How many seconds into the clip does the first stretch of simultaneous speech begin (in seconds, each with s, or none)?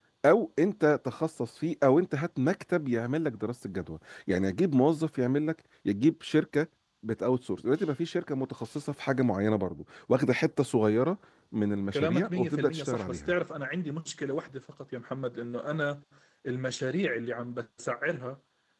11.9 s